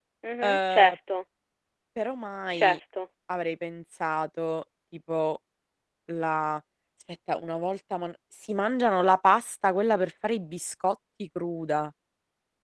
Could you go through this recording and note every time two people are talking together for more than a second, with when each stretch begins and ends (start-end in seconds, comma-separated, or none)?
none